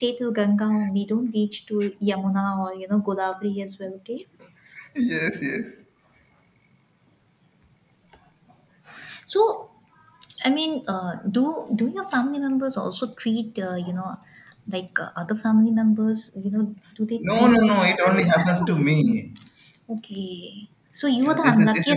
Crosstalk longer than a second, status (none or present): present